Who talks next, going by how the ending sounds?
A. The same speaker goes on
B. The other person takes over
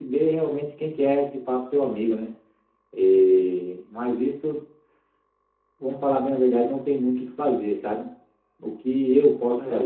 A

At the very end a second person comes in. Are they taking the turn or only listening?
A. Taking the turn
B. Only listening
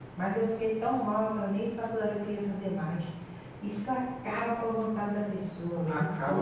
A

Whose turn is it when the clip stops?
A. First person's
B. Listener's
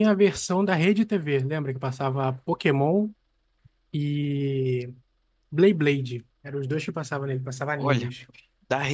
B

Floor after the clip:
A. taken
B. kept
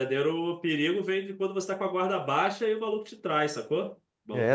A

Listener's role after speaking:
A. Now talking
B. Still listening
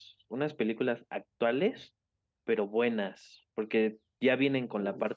B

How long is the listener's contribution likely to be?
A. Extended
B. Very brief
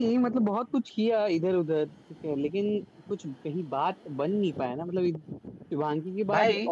B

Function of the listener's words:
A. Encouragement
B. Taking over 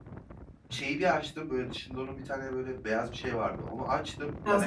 A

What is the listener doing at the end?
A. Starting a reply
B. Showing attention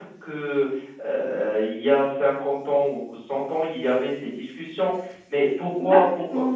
B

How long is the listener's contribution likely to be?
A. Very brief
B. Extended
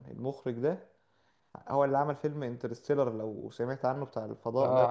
B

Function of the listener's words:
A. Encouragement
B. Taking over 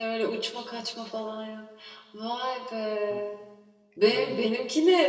A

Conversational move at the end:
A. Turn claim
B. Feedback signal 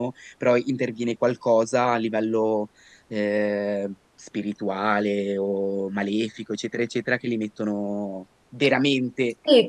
A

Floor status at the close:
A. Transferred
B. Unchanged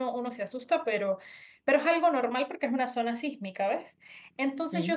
B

